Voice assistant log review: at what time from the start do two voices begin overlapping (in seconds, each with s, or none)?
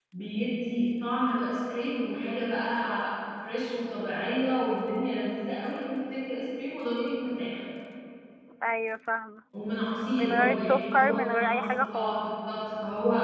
10.2 s